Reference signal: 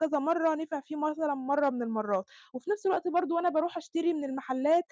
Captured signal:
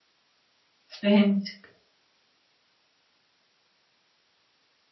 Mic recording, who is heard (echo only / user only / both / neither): user only